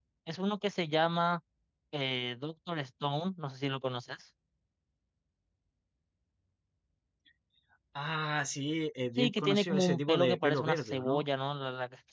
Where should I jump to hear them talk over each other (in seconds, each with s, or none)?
9.2 s